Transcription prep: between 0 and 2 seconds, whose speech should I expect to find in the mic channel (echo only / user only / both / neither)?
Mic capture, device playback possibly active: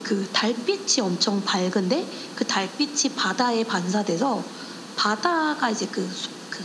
echo only